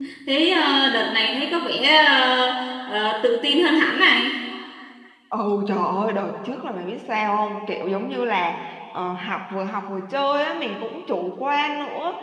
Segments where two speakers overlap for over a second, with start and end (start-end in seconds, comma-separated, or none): none